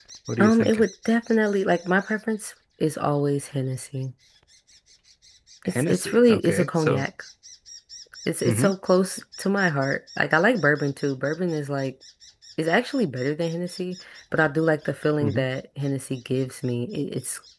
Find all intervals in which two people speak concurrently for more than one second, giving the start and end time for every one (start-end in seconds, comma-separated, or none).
5.7-7.1